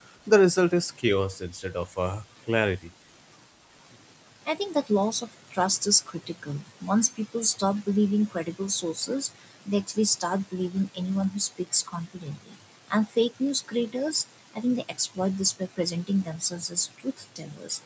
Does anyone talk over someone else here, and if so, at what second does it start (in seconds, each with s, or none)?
none